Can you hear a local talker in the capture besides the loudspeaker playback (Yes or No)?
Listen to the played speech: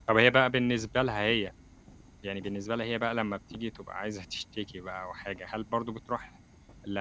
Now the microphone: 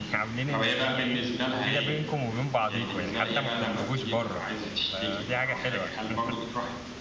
Yes